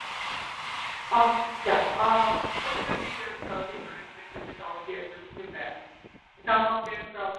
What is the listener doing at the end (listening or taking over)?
listening